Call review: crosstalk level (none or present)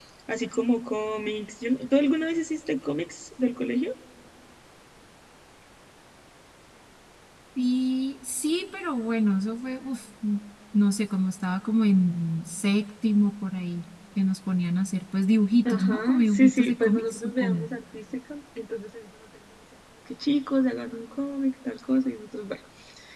present